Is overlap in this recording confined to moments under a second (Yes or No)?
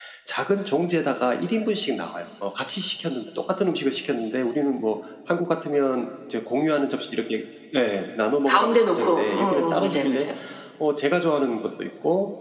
No